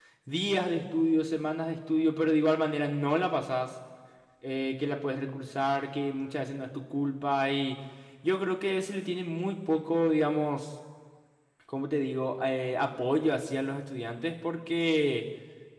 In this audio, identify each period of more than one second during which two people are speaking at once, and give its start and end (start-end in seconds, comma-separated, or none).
none